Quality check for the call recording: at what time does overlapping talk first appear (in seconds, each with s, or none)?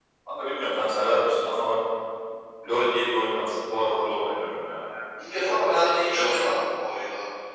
5.3 s